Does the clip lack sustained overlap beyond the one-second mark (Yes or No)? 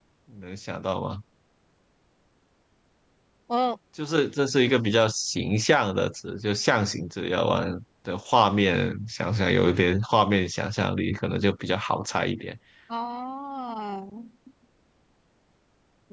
Yes